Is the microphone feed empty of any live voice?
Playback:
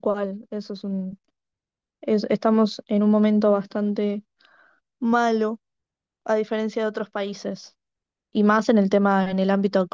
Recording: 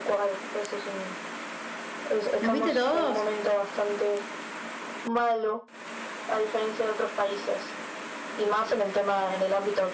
No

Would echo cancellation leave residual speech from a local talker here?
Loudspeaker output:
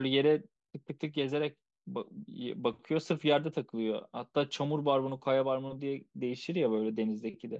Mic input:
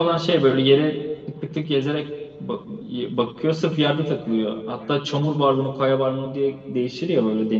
No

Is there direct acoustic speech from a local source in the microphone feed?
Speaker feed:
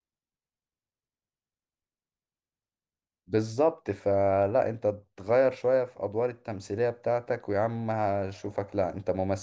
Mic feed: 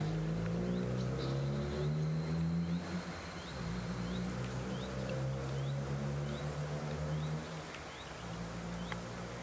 No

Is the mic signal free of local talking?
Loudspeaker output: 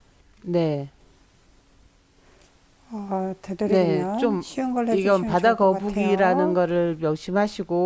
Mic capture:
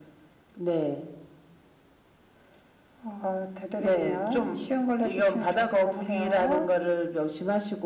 Yes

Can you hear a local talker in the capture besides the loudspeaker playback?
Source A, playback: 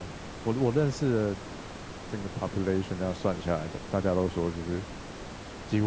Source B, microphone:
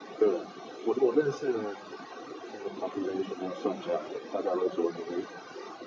No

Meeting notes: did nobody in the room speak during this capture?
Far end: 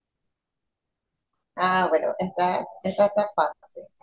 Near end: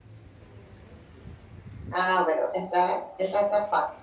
Yes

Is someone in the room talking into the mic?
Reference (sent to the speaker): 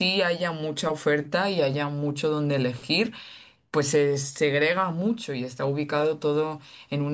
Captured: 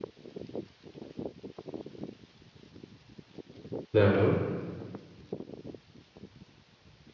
Yes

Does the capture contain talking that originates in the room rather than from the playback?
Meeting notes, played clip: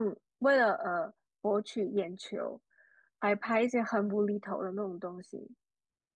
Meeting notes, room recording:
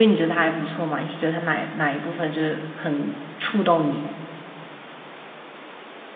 Yes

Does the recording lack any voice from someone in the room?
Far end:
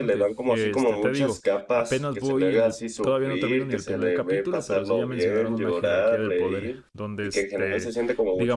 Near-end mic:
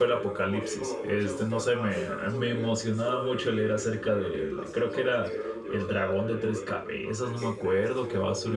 No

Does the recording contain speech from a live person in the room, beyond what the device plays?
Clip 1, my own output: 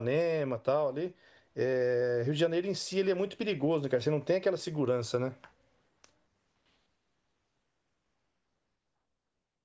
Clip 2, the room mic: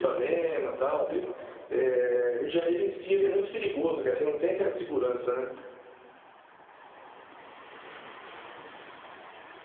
No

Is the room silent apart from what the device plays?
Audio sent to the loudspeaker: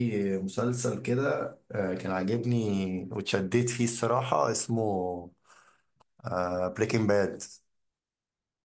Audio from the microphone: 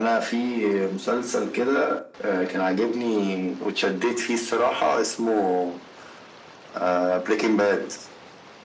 Yes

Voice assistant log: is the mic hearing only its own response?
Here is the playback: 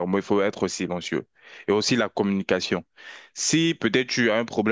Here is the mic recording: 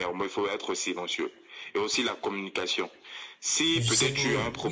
No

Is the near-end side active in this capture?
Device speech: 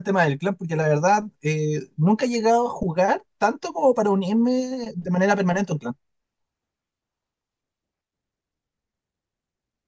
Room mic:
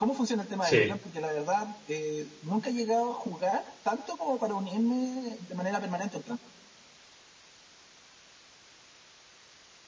Yes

